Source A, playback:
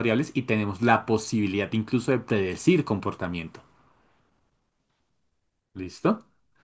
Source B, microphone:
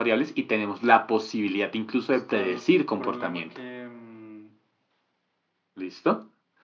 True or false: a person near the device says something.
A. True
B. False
A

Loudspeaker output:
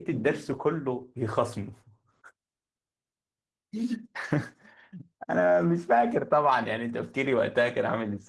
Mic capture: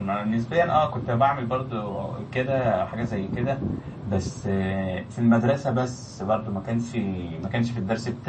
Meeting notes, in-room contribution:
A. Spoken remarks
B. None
A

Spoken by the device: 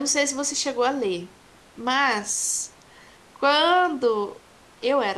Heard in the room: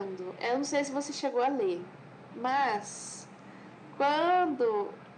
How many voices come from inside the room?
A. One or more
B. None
B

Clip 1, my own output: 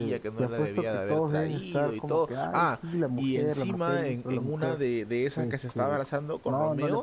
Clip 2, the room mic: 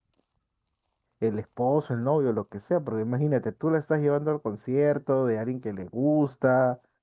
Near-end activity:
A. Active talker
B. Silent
A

